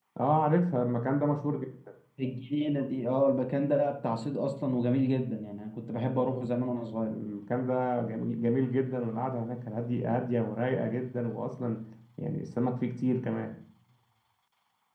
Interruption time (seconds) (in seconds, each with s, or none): none